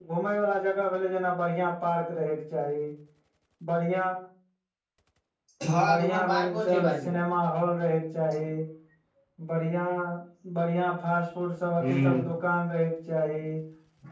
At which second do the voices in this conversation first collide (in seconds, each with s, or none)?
5.8 s